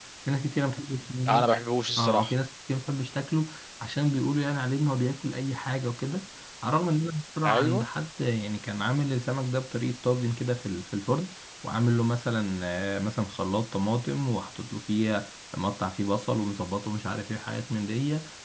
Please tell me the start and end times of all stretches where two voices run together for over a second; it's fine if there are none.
none

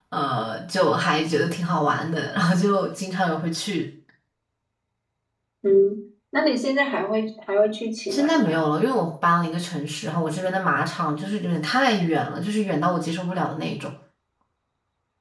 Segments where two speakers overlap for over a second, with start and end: none

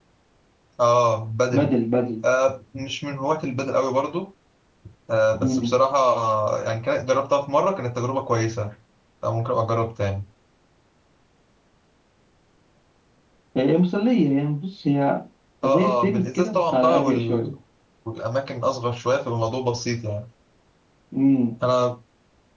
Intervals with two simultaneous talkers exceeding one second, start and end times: 15.6-17.5

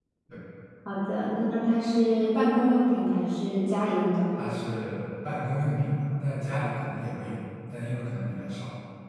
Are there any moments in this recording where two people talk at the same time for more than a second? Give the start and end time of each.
none

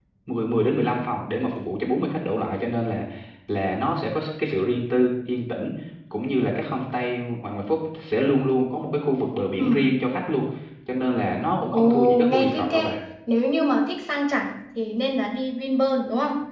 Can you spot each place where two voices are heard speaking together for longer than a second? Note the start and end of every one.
11.7-12.9

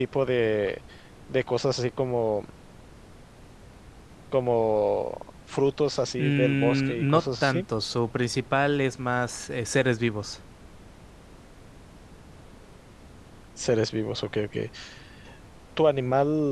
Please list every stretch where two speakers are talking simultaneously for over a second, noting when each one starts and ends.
6.2-7.6

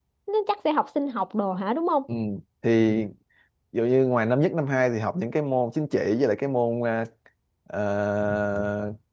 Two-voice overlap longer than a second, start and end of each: none

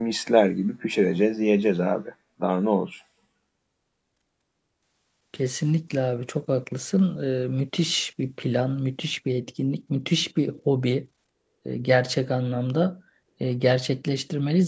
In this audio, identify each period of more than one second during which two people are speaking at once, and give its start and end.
none

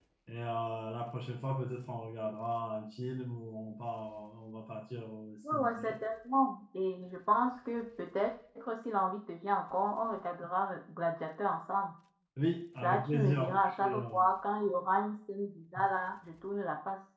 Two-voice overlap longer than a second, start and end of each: 12.8-14.2

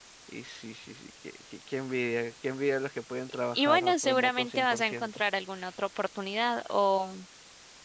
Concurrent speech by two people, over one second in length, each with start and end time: 3.5-5.2

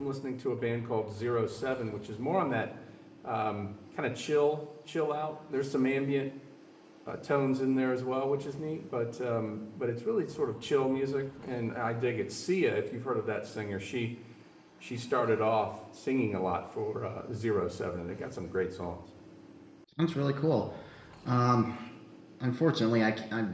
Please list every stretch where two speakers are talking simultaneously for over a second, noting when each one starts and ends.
none

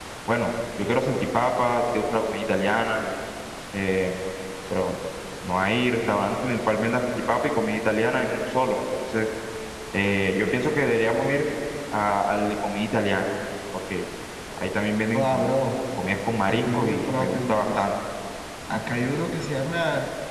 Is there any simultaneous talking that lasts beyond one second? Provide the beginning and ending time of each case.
16.5-17.8

